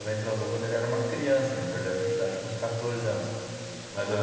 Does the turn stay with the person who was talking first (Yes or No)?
Yes